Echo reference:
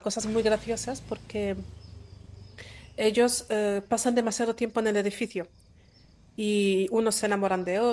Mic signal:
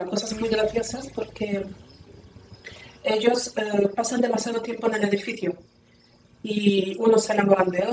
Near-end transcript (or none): none